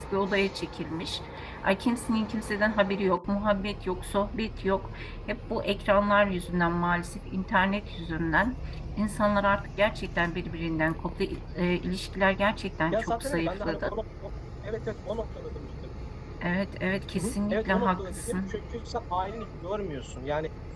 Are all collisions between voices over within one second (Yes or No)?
No